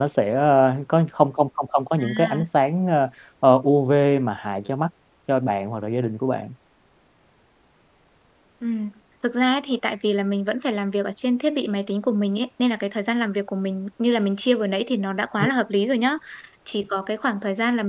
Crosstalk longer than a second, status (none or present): none